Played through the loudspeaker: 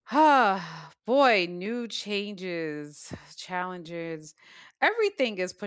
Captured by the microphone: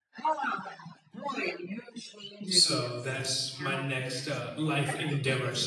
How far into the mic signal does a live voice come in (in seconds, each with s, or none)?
2.5 s